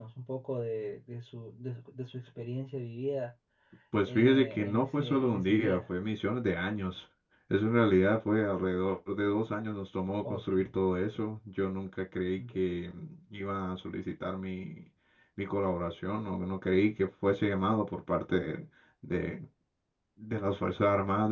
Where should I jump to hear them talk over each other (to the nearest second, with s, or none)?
4 s